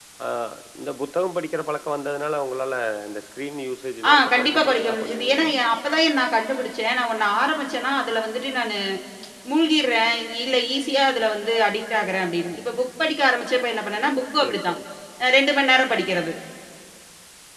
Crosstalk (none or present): present